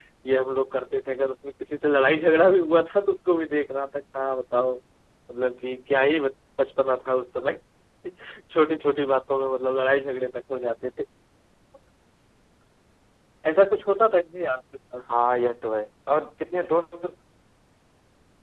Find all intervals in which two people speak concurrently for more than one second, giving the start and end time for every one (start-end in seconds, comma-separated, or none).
none